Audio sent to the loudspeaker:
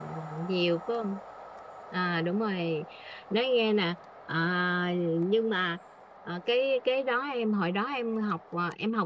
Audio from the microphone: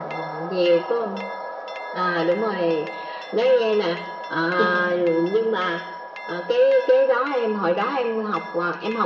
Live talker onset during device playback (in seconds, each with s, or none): 4.6 s